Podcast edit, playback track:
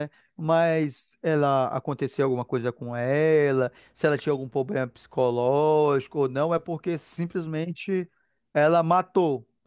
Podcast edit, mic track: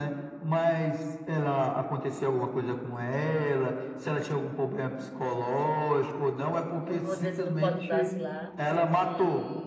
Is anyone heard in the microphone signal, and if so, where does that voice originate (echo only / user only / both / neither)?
both